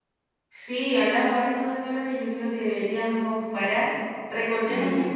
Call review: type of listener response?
listening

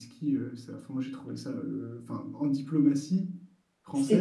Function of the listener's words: listening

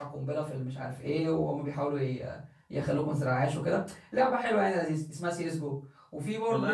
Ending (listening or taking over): taking over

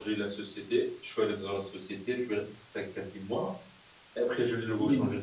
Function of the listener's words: listening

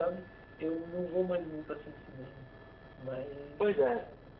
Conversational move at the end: taking over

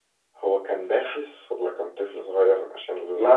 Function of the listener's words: taking over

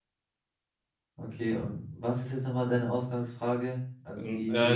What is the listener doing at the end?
taking over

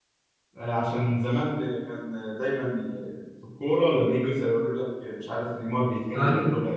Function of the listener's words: listening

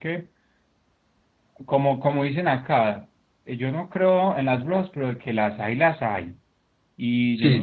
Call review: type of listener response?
listening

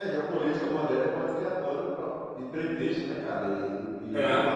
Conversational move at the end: listening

